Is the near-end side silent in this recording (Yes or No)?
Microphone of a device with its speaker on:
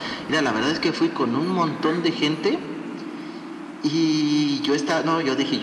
Yes